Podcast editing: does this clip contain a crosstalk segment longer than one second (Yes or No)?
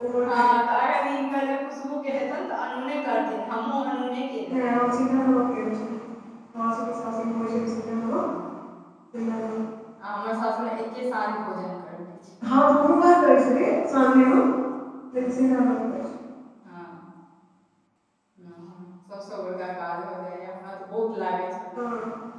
No